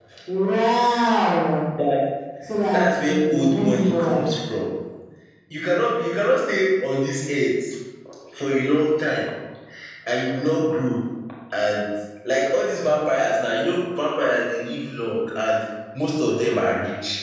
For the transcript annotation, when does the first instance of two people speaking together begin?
2.7 s

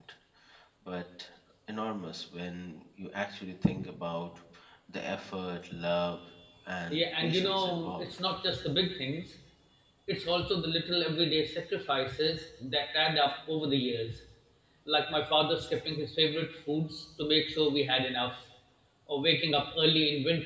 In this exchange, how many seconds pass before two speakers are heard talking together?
6.9 s

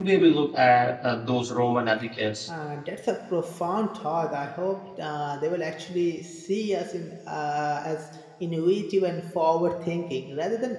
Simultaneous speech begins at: none

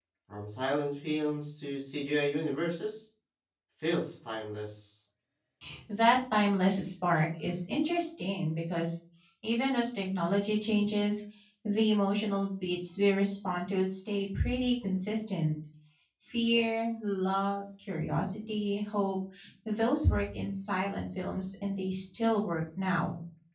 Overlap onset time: none

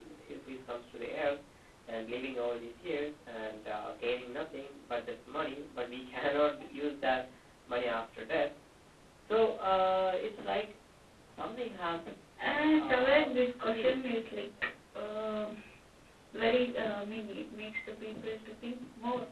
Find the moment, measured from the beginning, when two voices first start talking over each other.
12.8 s

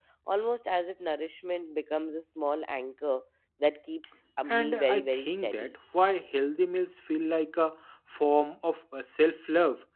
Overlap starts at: 4.5 s

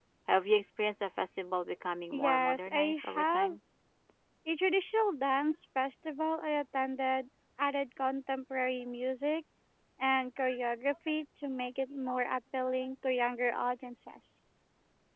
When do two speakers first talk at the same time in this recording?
2.1 s

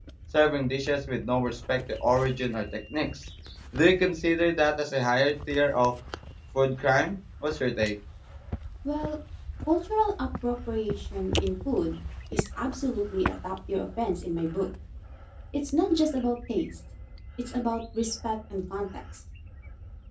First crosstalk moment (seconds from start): none

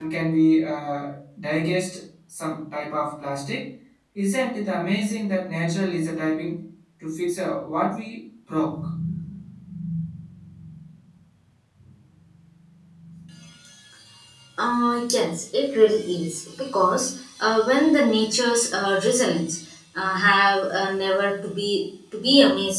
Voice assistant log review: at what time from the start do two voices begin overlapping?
none

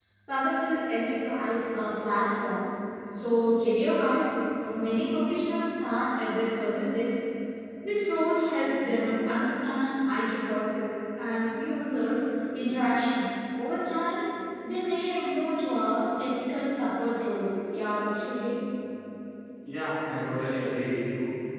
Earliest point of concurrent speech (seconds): none

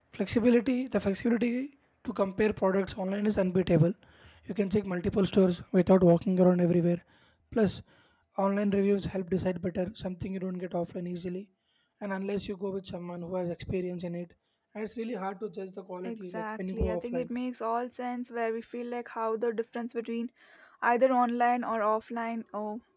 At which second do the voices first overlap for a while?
16.1 s

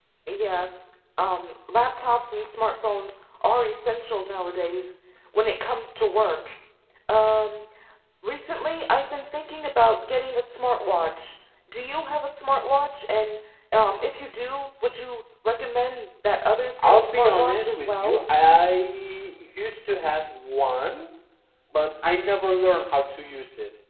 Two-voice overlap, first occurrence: 16.8 s

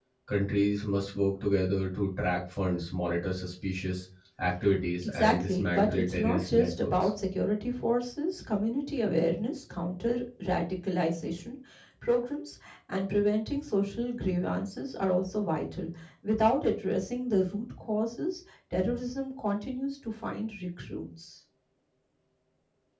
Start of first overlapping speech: 5.0 s

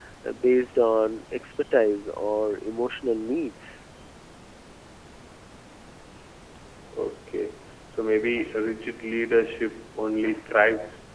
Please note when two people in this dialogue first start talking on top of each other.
none

